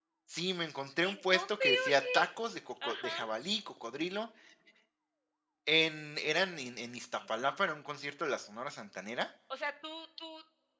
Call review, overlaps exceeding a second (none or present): present